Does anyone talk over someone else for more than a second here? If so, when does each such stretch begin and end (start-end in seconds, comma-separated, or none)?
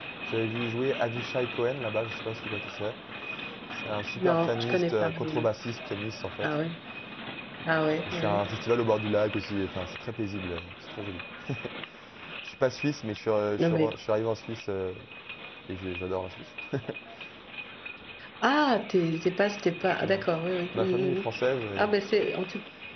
4.2-5.5